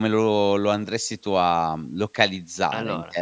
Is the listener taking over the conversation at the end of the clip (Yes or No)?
No